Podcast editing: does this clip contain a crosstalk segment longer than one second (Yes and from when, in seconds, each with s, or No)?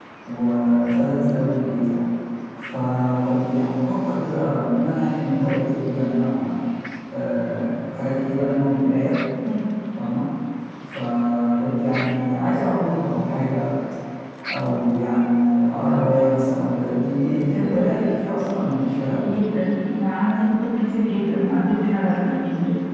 No